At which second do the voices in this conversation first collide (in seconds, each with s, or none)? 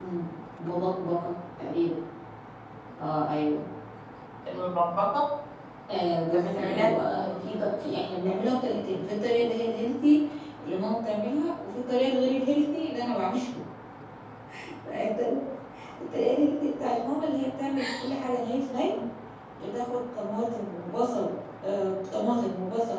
6.3 s